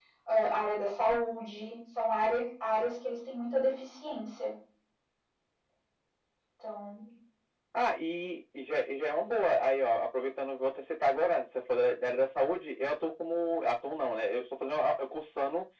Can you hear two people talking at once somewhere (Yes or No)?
No